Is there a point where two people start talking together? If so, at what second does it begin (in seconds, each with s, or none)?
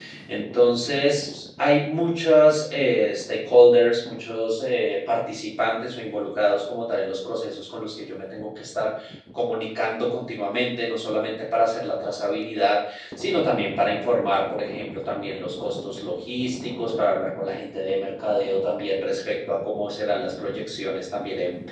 none